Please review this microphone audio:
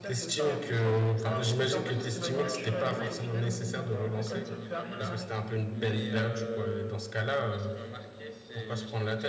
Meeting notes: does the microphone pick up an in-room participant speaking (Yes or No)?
Yes